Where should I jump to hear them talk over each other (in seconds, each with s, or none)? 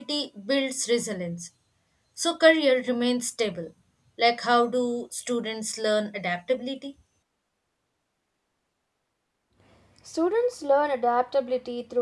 none